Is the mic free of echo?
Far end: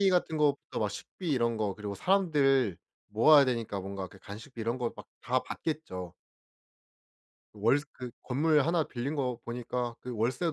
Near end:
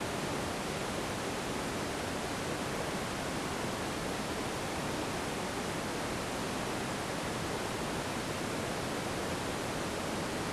Yes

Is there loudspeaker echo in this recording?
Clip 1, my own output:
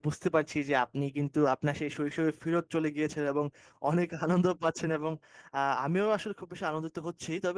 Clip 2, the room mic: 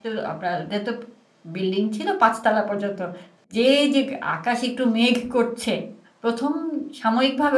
No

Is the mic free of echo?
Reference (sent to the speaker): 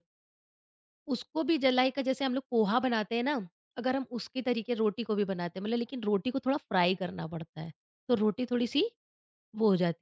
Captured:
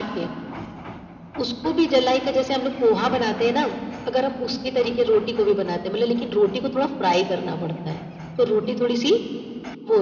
No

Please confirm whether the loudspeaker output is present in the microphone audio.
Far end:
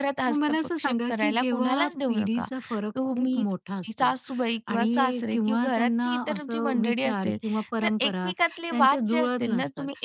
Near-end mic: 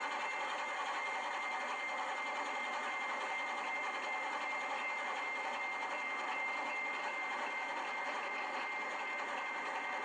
No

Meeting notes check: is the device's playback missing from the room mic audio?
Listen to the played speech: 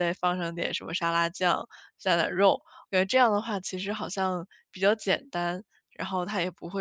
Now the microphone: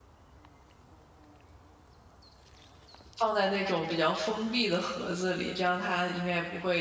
Yes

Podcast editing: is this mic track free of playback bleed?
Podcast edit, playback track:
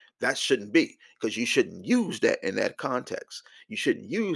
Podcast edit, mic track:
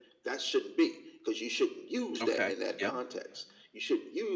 No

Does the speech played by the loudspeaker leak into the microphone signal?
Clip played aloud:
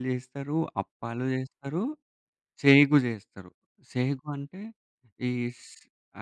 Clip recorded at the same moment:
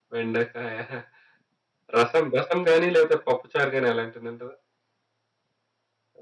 No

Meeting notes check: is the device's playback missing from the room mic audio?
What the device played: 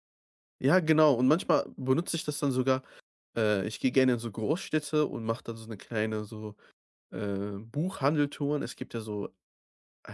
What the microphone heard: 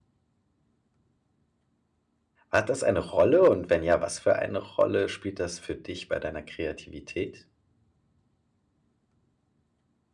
Yes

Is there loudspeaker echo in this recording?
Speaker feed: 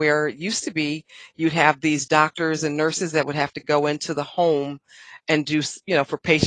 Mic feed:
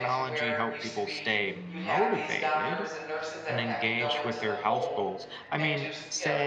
Yes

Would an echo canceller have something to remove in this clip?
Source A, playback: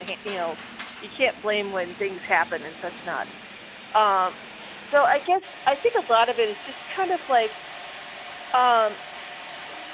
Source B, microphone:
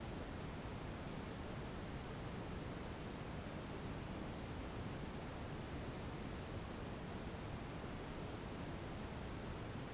No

